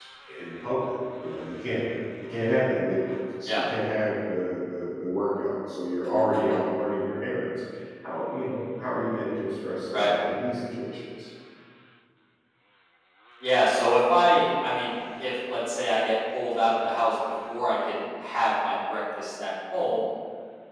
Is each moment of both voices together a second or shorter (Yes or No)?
Yes